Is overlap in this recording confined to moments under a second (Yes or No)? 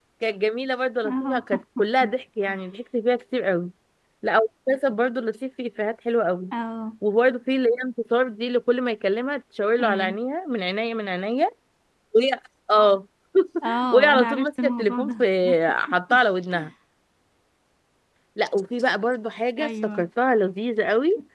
No